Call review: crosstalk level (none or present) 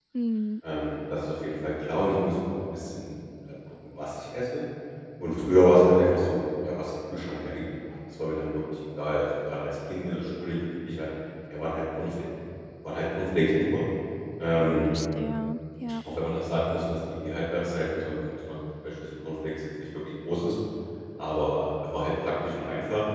none